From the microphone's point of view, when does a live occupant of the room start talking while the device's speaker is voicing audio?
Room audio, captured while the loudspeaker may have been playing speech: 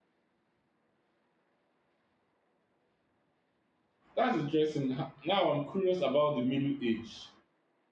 4 s

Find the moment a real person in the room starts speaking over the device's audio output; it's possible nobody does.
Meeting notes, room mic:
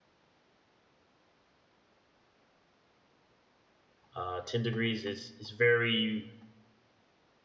4 s

